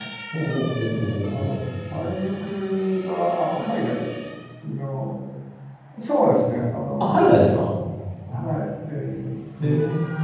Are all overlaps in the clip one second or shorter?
No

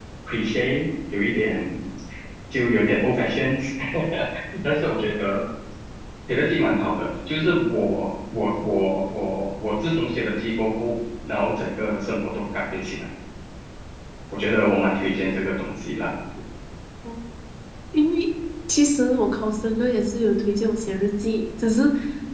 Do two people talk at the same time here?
No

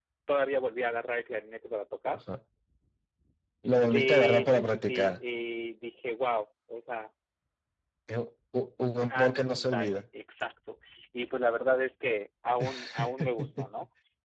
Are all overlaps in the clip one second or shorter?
No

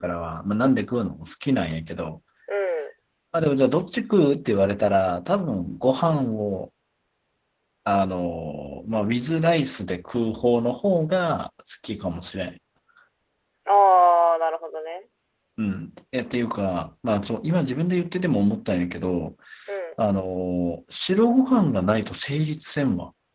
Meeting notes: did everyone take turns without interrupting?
Yes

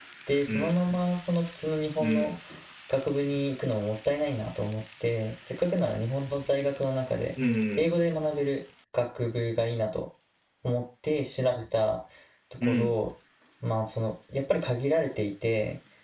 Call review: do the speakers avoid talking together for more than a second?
Yes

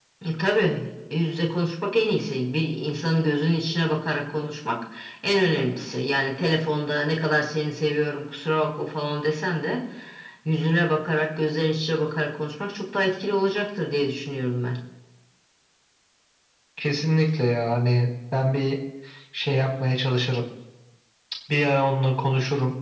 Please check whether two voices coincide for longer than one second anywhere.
No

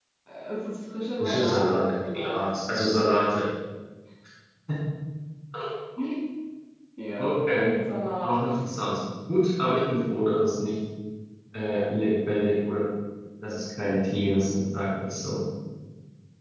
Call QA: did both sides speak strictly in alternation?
No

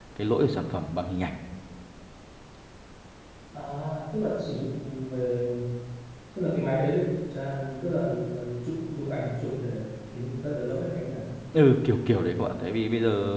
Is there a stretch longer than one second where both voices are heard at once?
No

